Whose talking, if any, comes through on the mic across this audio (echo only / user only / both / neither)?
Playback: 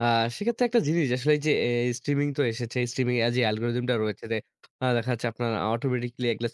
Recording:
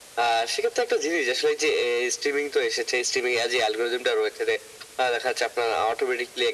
echo only